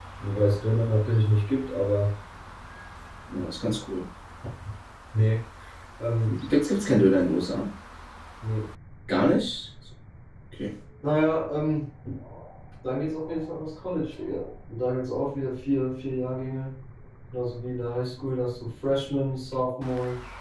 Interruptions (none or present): none